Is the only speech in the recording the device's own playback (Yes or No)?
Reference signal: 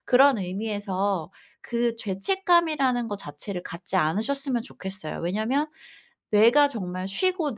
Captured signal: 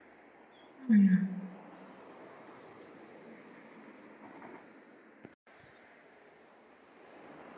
No